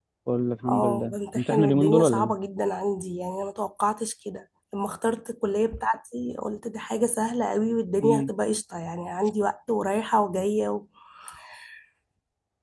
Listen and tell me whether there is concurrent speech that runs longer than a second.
Yes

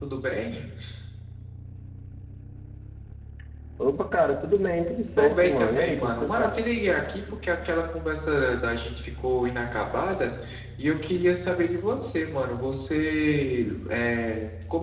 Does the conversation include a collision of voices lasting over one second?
Yes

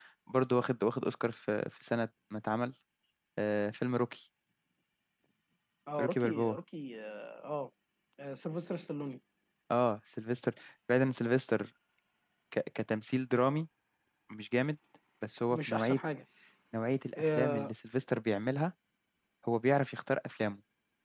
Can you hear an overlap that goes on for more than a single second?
No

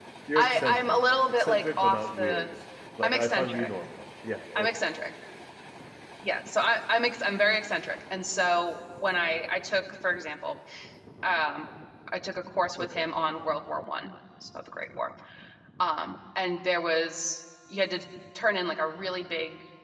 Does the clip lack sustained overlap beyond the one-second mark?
No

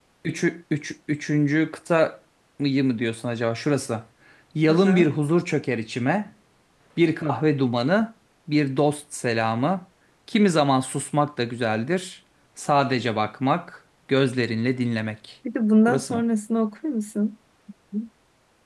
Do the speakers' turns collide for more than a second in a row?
No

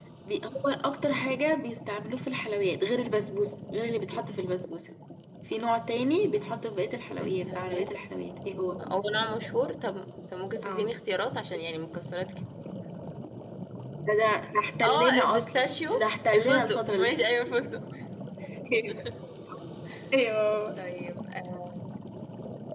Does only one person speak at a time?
No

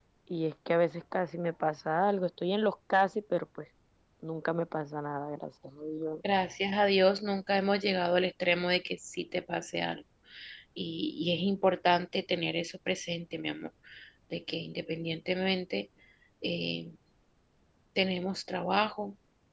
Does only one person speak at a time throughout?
Yes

